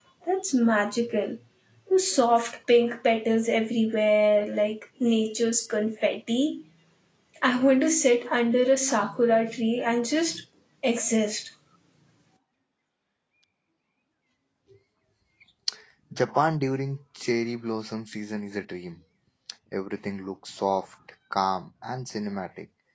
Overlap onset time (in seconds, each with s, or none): none